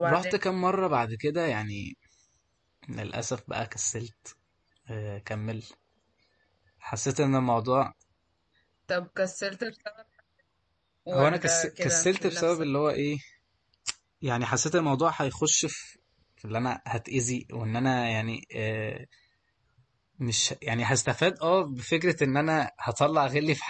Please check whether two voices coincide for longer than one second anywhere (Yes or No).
Yes